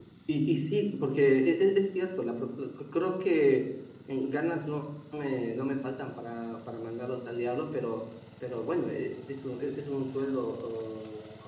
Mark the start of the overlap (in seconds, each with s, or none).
none